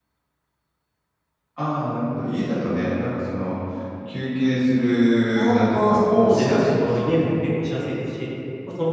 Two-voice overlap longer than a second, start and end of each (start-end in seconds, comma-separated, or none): 5.3-7.3